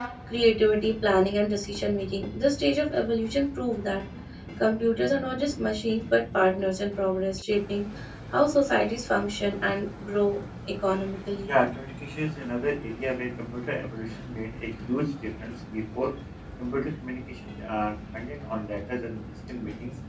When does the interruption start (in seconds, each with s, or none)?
none